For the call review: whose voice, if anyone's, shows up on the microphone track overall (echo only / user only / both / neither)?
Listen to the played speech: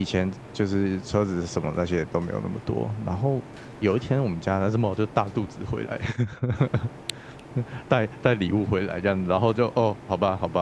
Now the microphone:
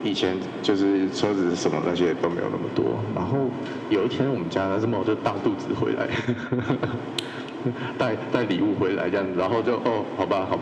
echo only